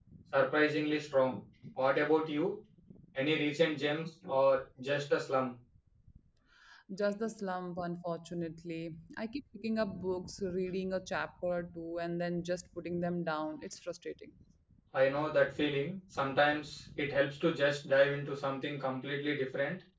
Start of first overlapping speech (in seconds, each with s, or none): none